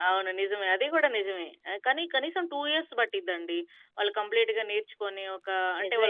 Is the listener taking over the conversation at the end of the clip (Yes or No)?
Yes